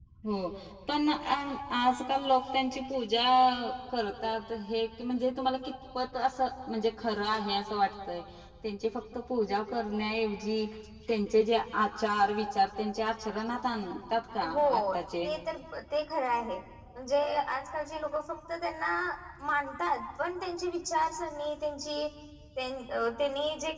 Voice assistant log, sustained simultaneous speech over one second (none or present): none